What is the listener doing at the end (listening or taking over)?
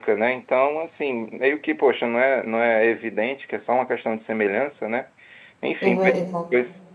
listening